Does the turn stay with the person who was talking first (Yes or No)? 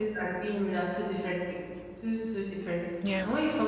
Yes